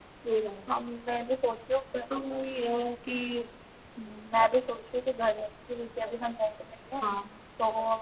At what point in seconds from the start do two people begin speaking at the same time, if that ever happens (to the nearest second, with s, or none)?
none